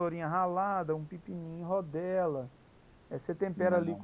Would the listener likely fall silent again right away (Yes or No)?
Yes